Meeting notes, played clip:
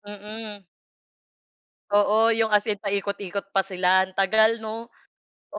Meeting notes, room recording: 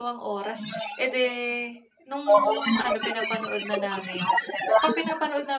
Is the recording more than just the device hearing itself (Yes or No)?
Yes